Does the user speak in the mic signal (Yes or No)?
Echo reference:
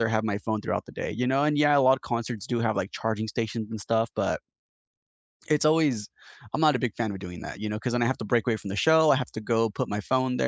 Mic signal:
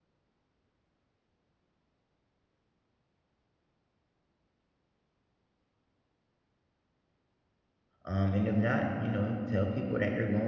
Yes